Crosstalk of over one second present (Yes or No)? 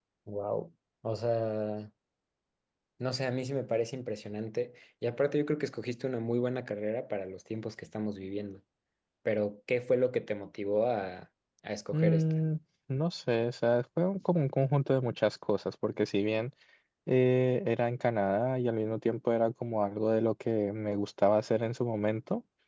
No